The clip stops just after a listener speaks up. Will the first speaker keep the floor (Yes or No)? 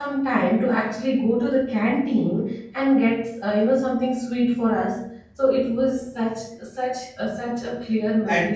No